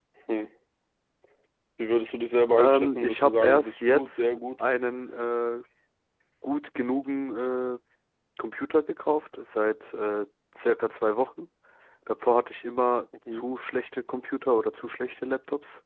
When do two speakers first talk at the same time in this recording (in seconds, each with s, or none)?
2.6 s